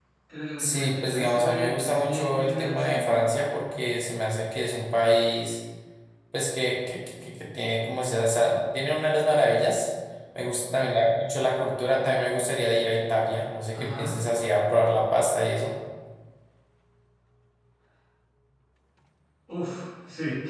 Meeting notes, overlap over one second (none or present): present